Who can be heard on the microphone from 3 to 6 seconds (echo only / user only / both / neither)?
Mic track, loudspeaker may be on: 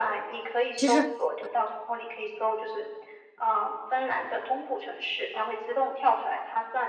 echo only